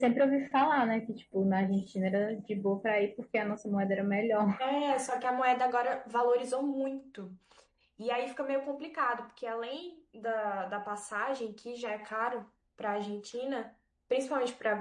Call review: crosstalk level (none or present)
none